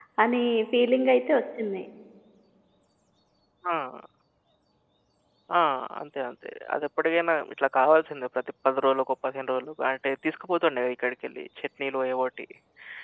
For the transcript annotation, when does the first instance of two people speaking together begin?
none

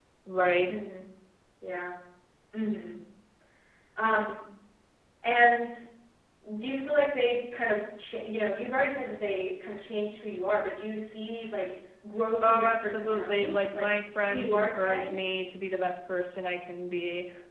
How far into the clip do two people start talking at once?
12.4 s

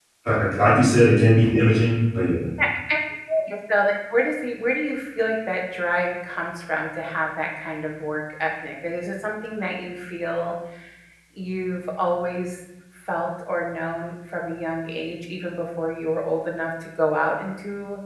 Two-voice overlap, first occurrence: none

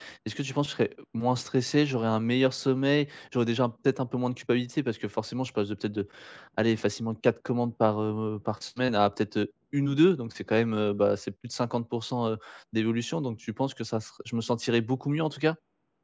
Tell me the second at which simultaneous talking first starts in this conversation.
none

